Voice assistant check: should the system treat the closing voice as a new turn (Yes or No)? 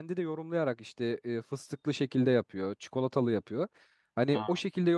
No